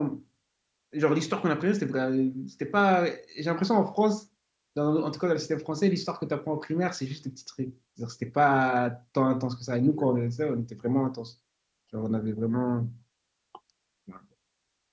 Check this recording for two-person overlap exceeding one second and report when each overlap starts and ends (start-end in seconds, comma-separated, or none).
none